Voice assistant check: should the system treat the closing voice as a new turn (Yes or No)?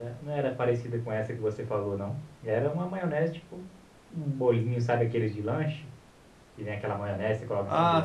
Yes